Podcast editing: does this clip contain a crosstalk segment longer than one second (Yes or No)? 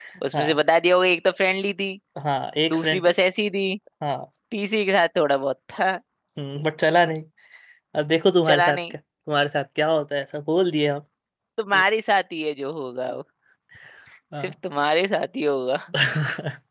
No